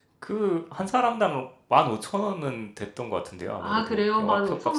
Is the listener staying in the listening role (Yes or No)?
No